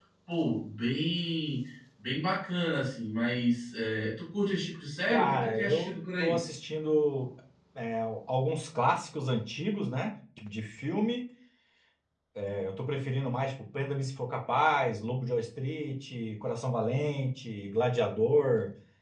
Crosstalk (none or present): present